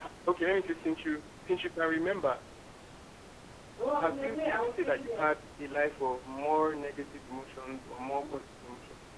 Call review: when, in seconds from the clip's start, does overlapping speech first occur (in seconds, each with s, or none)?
4.0 s